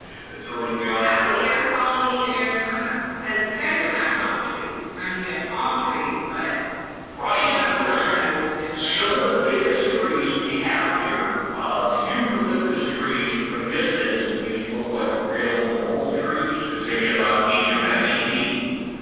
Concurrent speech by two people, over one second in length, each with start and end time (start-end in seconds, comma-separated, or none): none